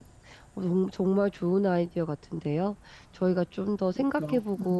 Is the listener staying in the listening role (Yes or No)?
Yes